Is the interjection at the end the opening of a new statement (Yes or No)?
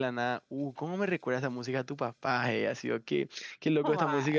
No